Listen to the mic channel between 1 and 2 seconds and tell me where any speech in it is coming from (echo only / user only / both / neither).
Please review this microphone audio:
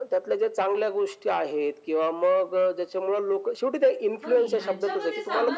echo only